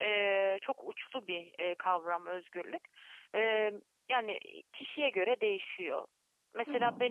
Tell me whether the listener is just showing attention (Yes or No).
Yes